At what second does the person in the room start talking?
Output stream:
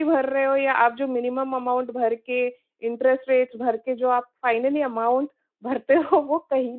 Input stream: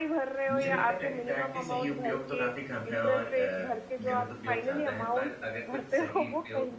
0.5 s

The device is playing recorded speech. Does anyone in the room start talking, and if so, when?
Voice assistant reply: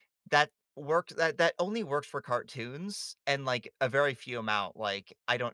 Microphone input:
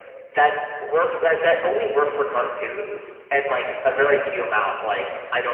none

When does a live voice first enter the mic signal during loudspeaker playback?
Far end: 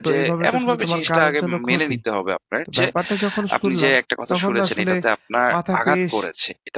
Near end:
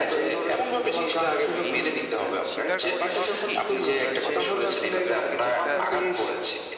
1.7 s

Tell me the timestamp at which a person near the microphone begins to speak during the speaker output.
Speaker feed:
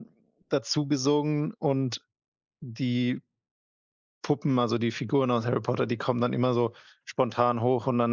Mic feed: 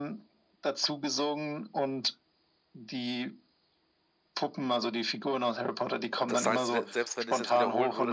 6.1 s

